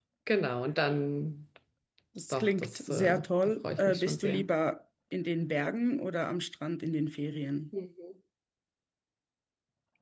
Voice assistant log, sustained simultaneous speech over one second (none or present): present